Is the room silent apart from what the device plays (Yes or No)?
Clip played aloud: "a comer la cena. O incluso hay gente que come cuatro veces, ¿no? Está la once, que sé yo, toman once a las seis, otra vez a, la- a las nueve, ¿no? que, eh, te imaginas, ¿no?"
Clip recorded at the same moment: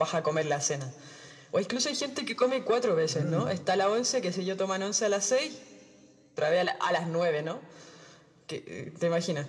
No